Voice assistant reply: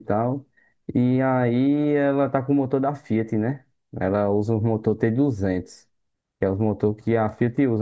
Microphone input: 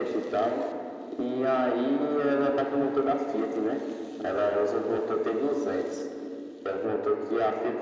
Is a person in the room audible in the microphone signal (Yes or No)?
No